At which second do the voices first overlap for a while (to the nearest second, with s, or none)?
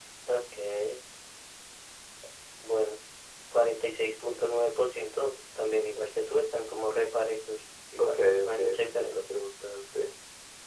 8 s